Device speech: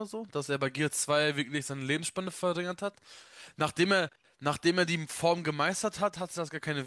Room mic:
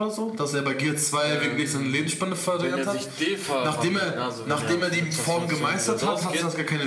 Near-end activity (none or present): present